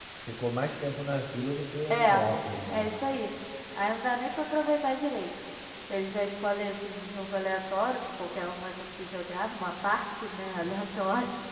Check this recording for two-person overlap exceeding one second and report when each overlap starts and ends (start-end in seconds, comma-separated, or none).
none